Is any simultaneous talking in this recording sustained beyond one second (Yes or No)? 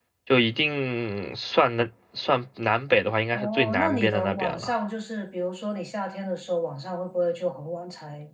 Yes